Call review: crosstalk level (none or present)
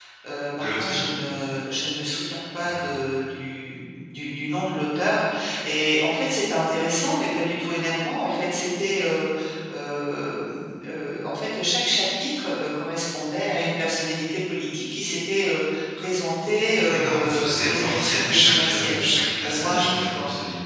present